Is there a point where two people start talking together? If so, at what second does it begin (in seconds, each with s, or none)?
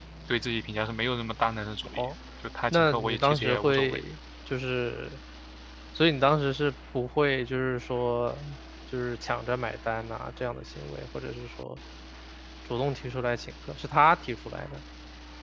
2.7 s